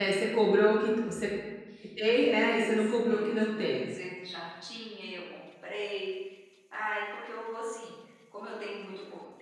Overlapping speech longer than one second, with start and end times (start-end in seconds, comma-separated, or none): 2.2-3.9